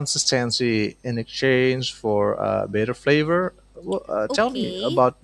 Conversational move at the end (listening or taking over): taking over